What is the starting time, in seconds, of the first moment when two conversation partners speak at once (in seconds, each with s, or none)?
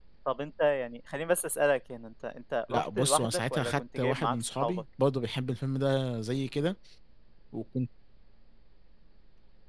2.7 s